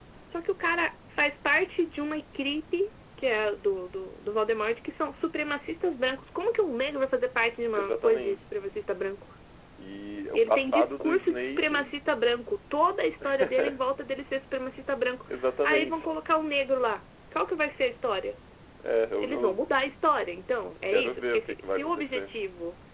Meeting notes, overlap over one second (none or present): present